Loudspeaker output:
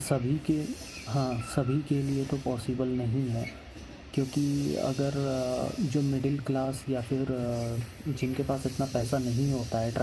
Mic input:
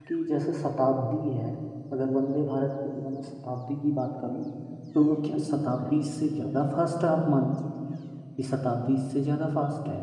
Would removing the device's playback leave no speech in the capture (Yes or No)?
No